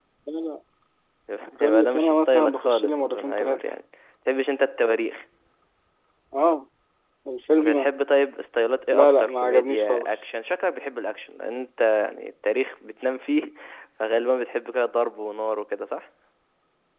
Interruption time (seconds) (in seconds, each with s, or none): 1.6 s